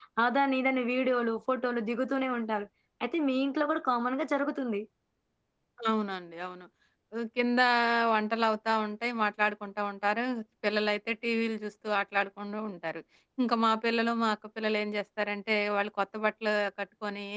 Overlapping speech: No

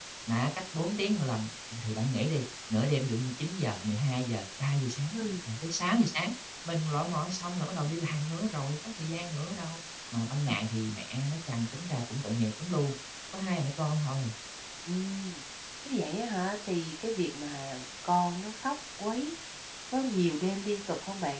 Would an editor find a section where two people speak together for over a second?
No

